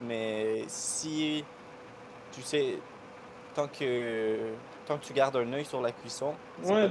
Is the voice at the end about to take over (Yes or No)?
Yes